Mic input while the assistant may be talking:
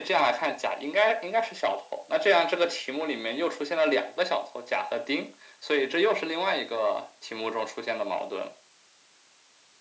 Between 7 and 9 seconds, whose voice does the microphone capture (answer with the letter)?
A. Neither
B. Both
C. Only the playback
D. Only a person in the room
C